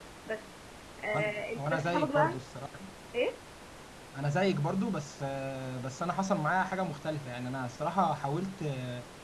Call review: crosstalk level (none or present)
present